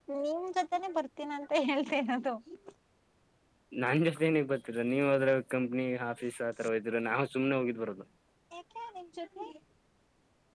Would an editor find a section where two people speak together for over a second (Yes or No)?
No